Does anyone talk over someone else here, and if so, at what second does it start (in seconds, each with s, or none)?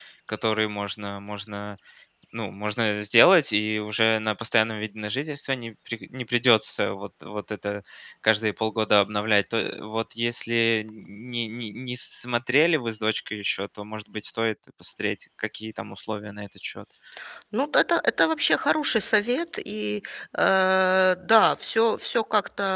none